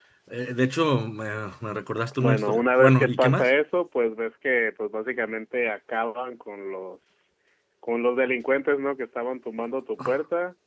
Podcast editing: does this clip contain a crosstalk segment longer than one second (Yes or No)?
Yes